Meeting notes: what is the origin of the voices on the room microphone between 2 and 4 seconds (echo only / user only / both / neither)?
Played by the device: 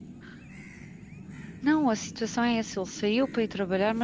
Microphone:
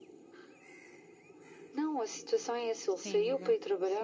both